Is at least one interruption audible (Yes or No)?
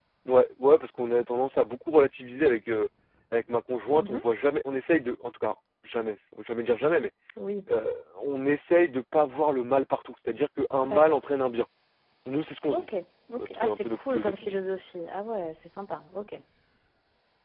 Yes